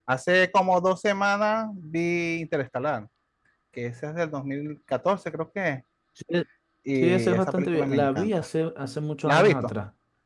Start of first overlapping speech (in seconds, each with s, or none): 7.0 s